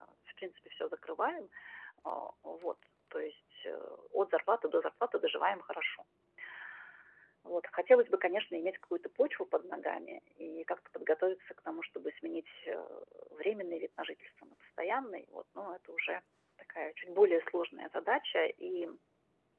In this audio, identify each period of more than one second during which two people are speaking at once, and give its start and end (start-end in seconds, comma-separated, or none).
none